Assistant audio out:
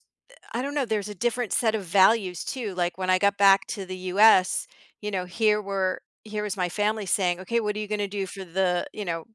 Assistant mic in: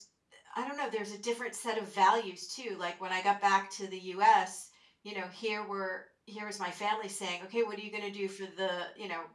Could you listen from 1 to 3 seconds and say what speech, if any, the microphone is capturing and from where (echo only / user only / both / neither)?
echo only